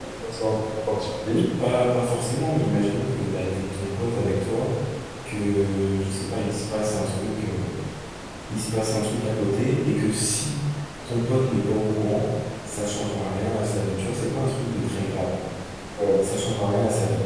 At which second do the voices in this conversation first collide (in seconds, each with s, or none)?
none